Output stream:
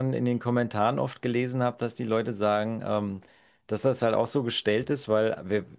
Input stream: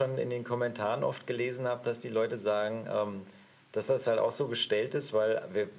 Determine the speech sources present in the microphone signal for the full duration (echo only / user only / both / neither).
echo only